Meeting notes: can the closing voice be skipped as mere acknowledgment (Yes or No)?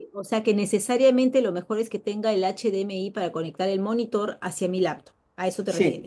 No